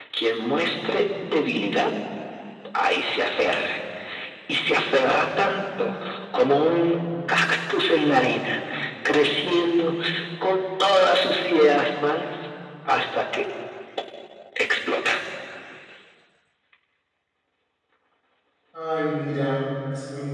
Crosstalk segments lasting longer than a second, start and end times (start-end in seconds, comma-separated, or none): none